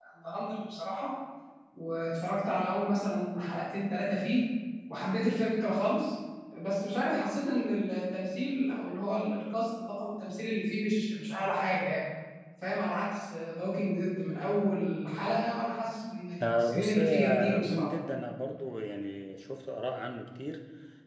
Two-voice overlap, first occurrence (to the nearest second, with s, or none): 16 s